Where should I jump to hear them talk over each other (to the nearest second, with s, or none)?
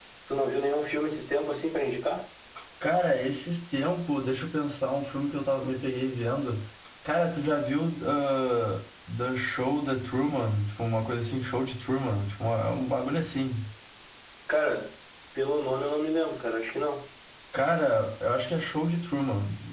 none